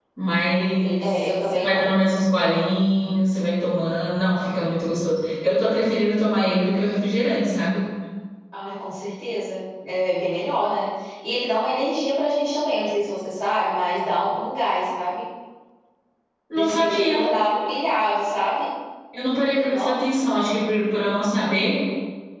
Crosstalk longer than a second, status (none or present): present